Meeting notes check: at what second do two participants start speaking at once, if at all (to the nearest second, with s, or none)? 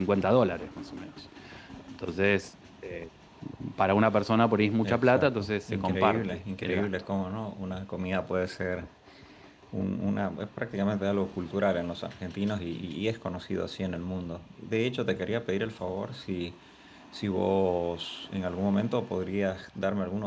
5 s